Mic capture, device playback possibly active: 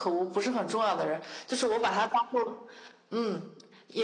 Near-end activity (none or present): none